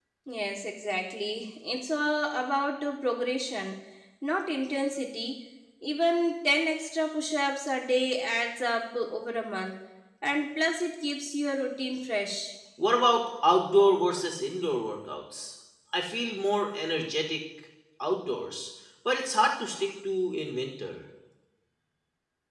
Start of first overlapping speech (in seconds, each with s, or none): none